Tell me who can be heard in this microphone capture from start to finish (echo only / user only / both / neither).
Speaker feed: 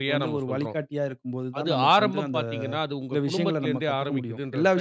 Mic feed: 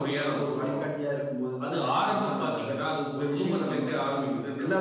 echo only